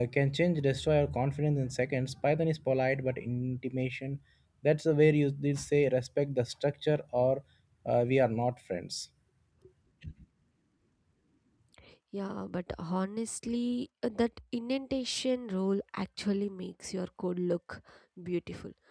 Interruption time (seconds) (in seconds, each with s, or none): none